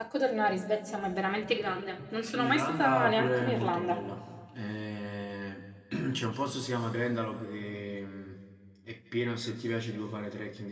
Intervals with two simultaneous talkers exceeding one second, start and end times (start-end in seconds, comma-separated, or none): 2.2-4.0